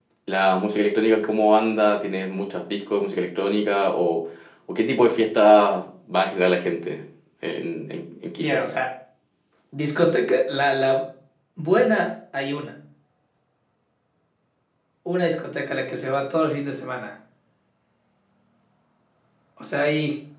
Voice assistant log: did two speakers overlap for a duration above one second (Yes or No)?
No